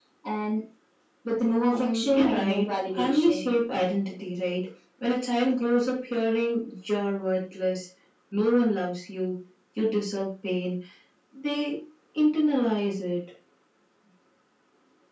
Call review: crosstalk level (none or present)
present